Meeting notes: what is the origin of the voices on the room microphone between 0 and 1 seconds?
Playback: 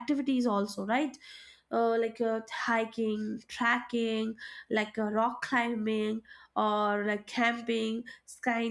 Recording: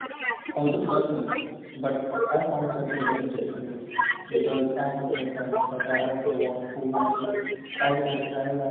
both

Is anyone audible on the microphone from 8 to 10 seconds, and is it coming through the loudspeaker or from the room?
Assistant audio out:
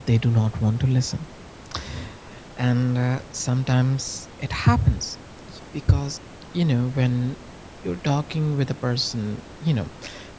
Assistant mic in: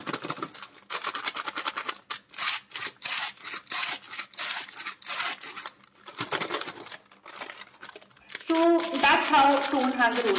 user only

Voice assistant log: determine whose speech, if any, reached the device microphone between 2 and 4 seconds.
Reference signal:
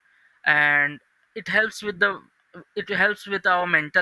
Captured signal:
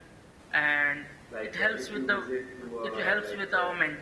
both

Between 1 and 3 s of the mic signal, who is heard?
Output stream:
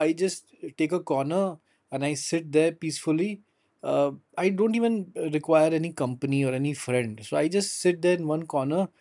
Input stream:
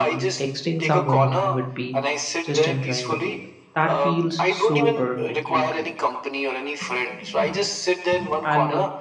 both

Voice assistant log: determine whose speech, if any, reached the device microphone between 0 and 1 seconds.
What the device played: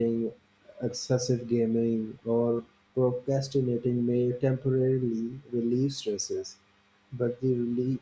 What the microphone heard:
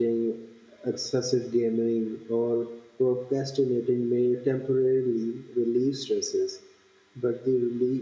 echo only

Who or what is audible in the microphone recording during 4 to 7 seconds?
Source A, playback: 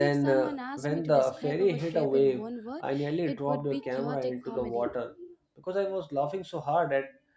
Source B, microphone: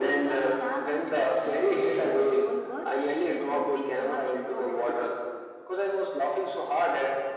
echo only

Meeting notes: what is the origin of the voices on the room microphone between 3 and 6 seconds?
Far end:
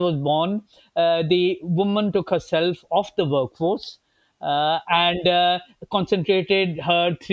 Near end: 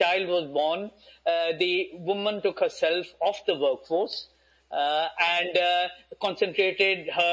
echo only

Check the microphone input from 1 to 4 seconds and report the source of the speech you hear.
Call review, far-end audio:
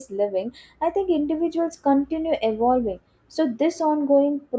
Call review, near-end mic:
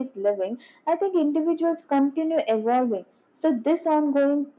echo only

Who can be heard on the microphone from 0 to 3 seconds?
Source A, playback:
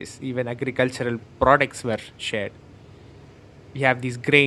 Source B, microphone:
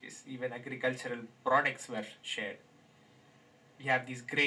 echo only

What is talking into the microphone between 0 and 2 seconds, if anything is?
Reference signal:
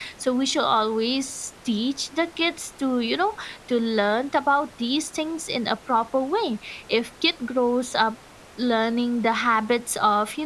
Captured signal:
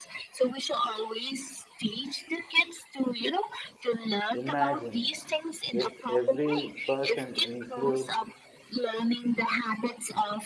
echo only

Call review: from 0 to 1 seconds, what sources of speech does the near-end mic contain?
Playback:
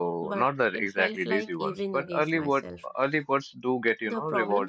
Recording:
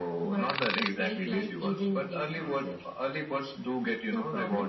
echo only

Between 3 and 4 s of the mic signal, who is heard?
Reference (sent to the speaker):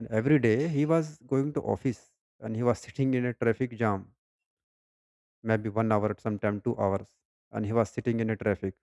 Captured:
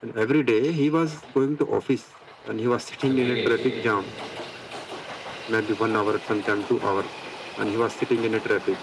both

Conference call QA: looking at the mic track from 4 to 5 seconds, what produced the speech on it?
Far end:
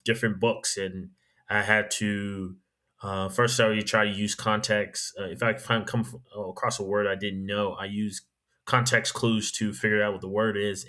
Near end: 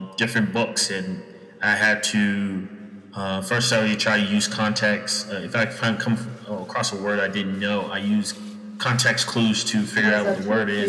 echo only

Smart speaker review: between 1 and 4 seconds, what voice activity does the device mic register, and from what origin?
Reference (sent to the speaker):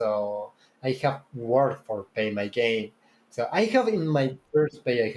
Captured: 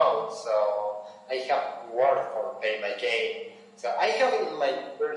echo only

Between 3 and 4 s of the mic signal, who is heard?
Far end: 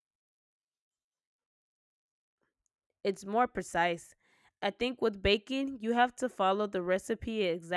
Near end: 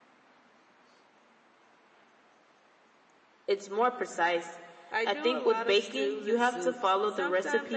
echo only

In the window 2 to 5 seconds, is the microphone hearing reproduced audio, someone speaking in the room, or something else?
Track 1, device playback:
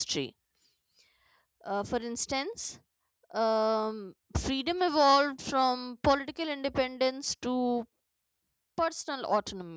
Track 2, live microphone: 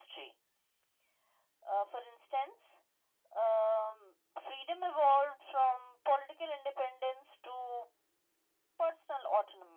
echo only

